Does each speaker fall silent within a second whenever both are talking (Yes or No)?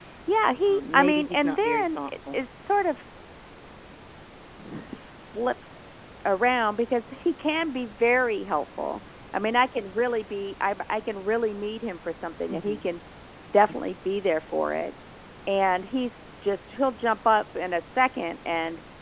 No